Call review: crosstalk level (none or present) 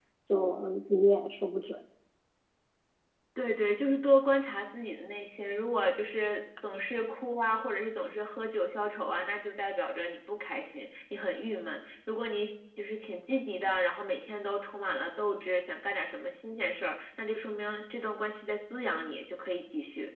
none